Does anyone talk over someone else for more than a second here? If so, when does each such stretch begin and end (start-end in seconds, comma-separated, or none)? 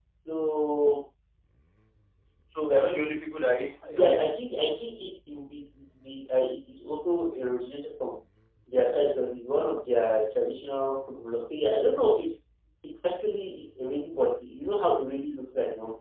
none